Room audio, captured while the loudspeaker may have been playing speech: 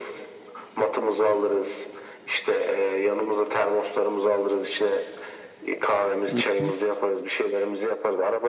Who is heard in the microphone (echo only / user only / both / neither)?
both